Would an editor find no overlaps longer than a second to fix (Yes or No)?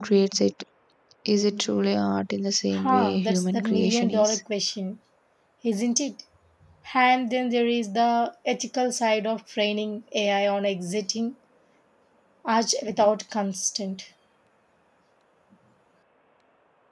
No